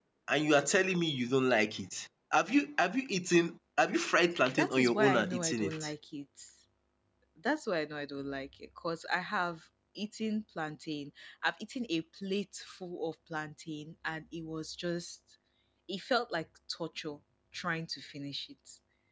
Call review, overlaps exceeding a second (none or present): present